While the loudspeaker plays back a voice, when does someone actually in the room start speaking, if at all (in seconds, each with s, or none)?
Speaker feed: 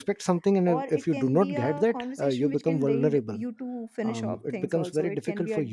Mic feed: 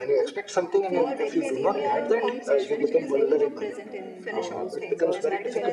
0.8 s